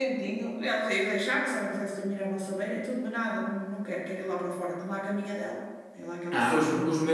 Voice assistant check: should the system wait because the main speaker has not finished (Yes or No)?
No